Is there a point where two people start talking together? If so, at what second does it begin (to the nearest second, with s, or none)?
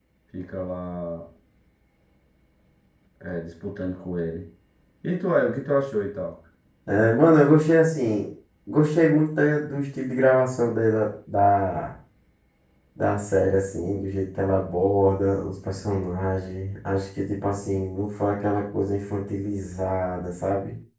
none